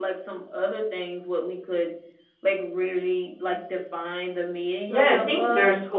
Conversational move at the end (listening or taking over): taking over